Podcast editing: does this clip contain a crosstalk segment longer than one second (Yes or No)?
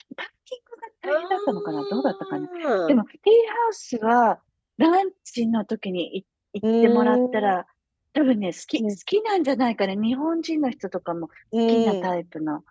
Yes